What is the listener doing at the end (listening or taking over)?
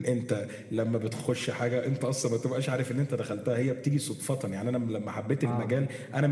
listening